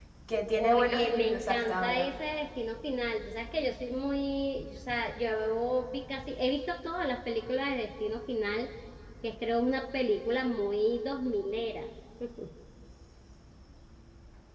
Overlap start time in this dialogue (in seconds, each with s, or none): 0.6 s